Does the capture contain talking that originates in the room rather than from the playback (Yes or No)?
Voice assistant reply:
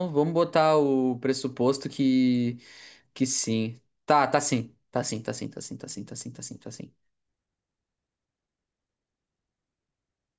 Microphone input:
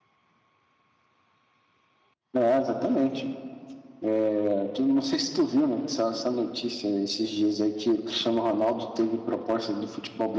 Yes